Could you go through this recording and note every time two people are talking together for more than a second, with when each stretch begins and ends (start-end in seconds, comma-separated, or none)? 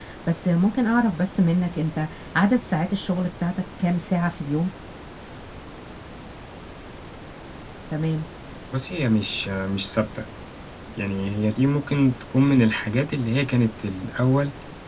none